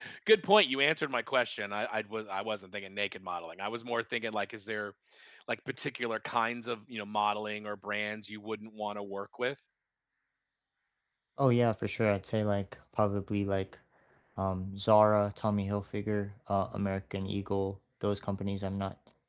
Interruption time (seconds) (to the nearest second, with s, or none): none